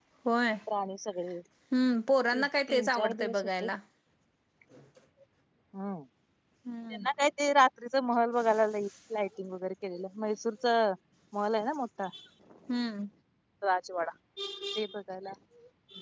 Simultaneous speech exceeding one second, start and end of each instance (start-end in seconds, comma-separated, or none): 2.3-3.7